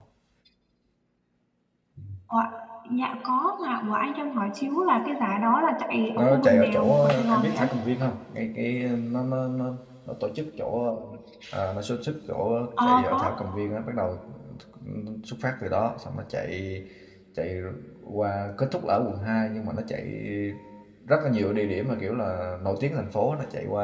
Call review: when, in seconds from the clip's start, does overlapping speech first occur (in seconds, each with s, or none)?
6.2 s